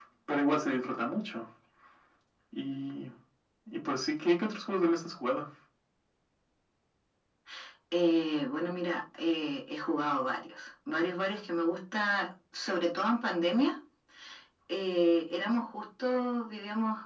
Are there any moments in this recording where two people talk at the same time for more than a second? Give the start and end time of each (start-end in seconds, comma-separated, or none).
none